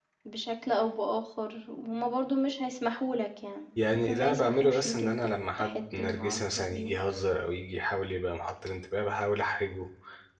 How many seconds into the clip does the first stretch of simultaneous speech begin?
3.8 s

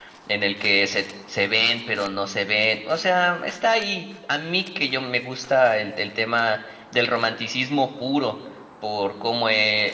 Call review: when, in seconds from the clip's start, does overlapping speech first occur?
none

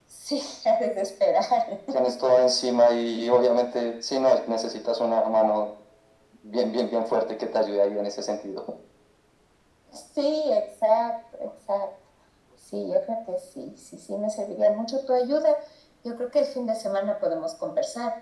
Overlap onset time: none

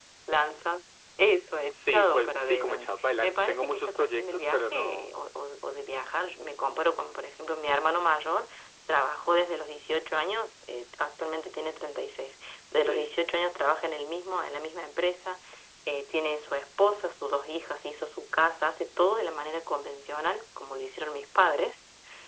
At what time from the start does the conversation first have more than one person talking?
1.9 s

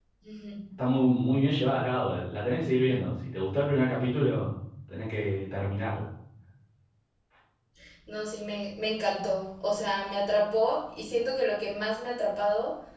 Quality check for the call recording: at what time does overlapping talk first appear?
none

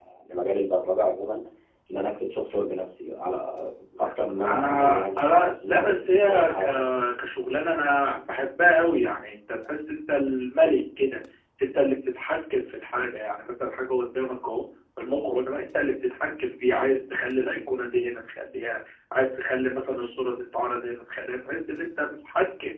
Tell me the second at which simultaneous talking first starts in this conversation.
4.5 s

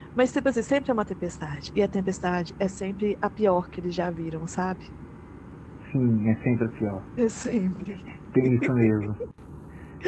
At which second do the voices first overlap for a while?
none

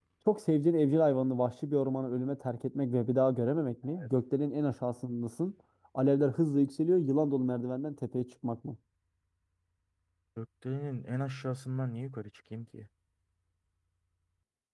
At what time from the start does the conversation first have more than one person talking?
none

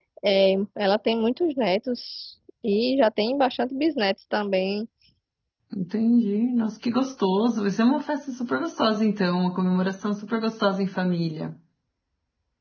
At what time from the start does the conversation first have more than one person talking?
none

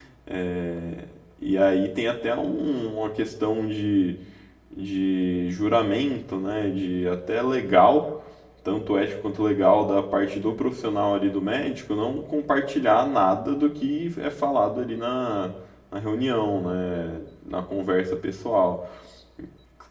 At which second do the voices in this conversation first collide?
none

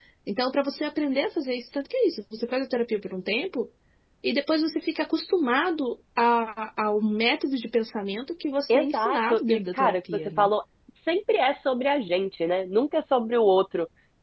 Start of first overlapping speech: 8.7 s

